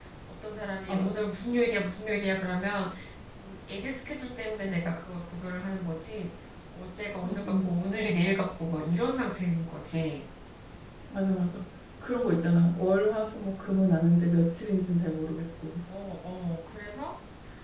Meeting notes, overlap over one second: none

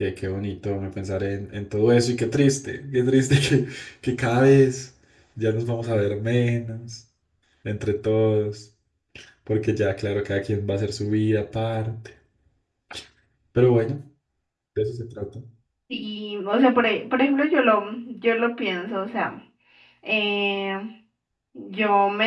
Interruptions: none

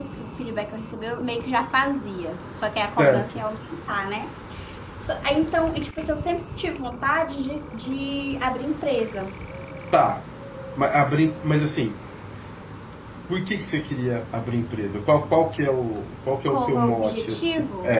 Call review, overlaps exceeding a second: present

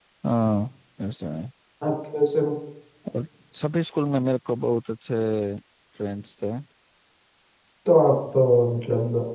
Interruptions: none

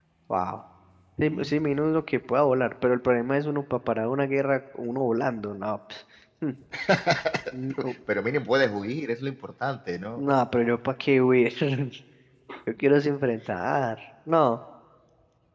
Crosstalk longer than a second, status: none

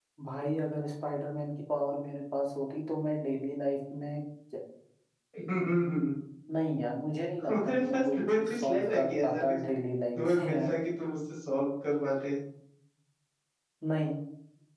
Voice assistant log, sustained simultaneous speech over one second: present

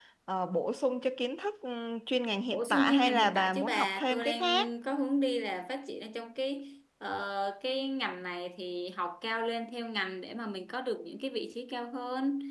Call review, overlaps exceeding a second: present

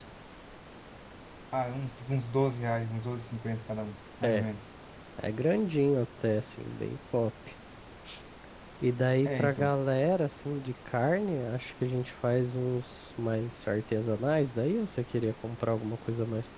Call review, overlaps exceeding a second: none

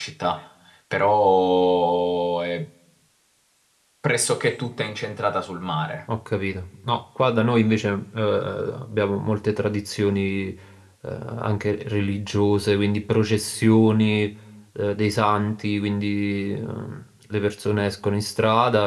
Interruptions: none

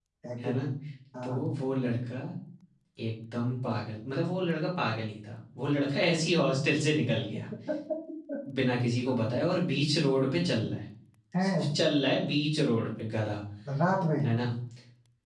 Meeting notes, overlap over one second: none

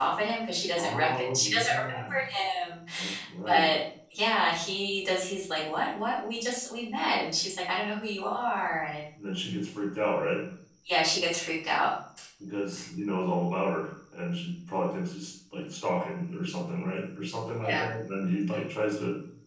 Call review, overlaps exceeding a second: present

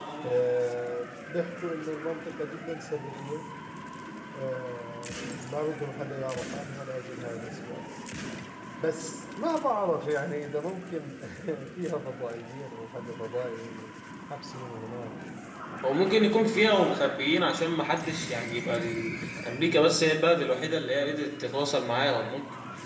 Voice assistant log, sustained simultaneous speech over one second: none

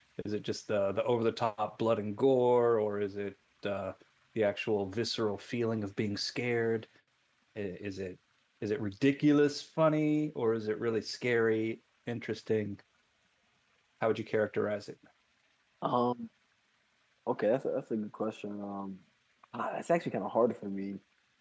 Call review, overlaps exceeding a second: none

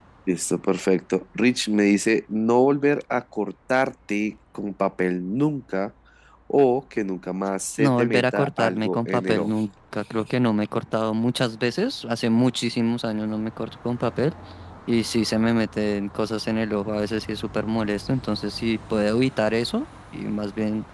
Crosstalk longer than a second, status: present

